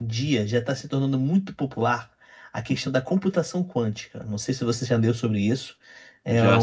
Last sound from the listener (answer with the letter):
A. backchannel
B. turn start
A